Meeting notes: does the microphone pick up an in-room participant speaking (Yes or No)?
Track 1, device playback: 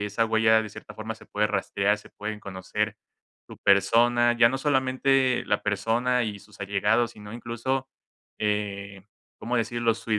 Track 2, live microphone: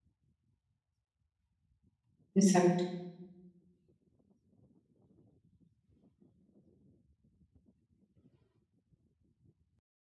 Yes